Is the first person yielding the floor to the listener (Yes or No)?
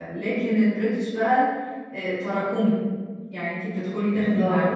No